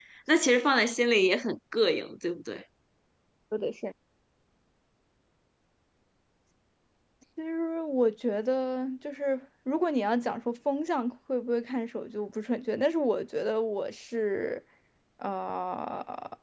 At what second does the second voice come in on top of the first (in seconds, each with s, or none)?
none